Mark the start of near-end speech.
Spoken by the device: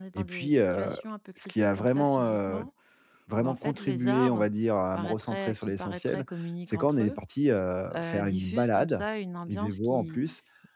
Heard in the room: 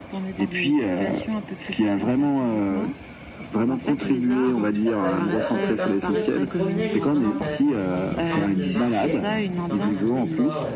4.4 s

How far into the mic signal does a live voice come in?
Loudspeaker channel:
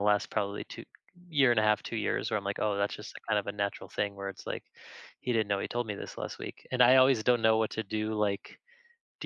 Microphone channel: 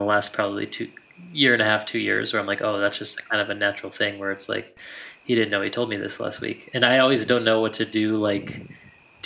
none

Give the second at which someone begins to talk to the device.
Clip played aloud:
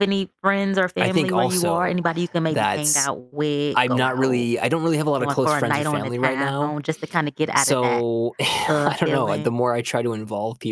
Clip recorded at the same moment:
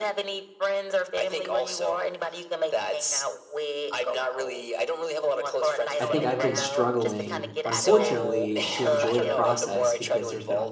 6.0 s

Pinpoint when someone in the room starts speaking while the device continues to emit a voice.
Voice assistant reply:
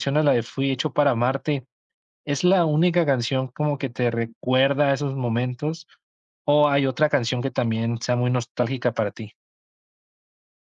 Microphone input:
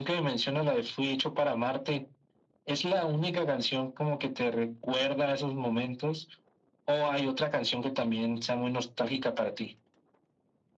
none

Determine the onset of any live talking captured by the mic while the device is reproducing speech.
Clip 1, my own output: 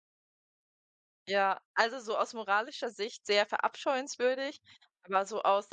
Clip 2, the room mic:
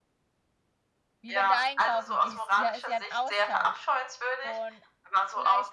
1.2 s

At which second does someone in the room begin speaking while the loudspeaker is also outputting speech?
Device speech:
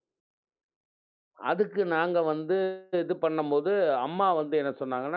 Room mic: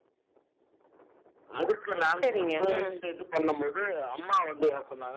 2.2 s

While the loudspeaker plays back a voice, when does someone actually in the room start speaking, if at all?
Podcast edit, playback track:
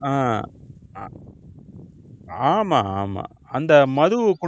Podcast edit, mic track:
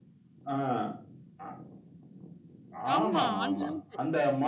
3.0 s

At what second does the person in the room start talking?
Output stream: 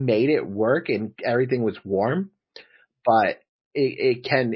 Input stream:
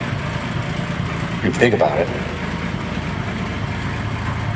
1.4 s

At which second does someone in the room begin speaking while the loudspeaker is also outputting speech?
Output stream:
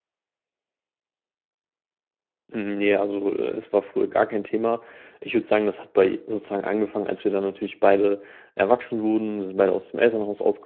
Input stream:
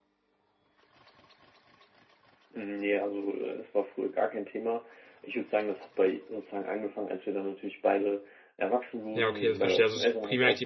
9.1 s

